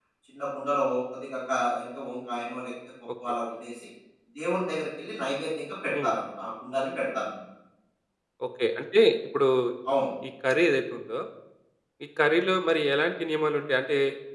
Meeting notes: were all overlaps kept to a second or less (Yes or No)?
Yes